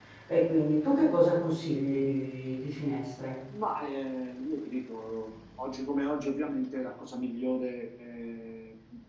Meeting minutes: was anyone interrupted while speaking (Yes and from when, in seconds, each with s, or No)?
No